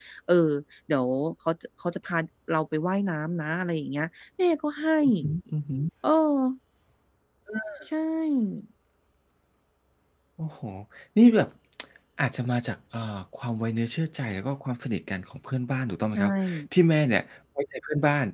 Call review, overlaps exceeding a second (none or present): none